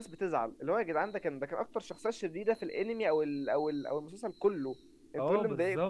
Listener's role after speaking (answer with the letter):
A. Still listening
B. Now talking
B